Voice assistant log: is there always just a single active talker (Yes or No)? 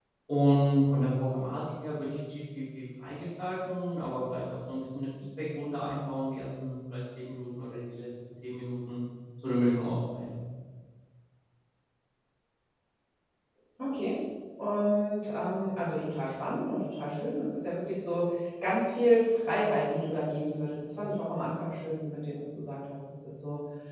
Yes